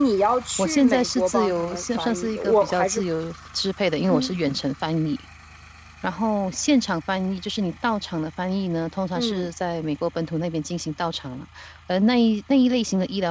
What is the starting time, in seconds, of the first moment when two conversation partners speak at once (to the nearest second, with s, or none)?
1 s